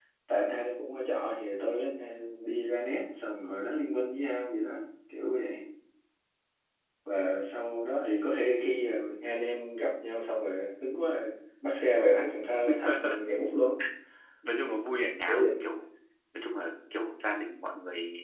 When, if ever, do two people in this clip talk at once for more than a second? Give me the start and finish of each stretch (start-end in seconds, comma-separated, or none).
none